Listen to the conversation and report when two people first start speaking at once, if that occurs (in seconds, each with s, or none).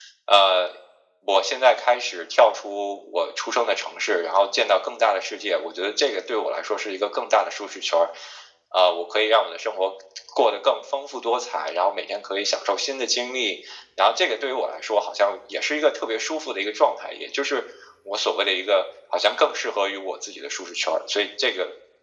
none